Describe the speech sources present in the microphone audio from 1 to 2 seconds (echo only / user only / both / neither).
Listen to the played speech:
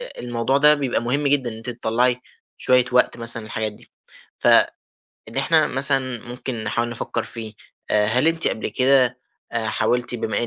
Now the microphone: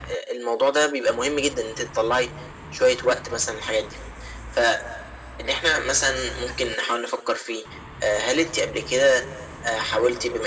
echo only